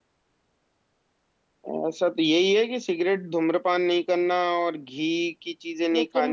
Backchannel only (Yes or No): Yes